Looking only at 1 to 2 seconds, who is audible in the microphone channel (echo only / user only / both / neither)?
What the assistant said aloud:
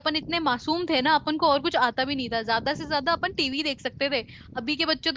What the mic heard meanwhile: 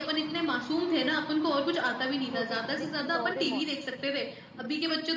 echo only